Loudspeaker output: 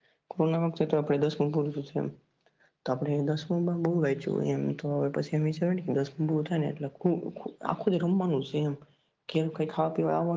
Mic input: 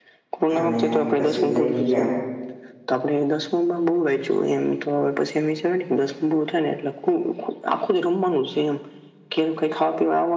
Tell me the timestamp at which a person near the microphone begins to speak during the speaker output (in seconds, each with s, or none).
0.6 s